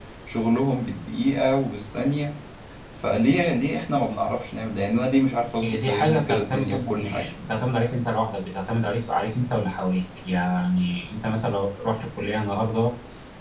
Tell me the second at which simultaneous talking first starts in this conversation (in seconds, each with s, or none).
5.6 s